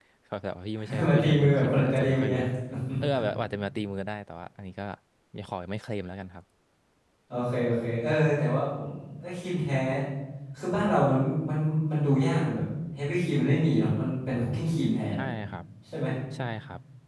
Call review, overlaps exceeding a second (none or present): present